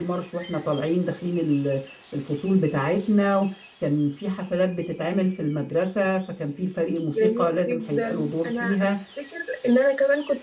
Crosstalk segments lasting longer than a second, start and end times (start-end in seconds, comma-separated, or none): 7.1-8.9